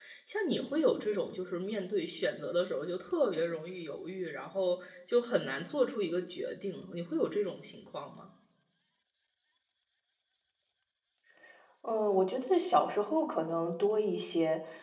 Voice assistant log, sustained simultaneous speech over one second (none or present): none